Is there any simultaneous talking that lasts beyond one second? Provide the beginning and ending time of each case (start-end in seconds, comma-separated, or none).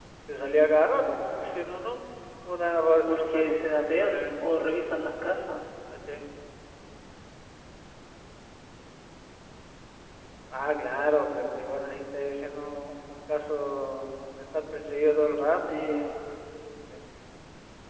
3.0-4.2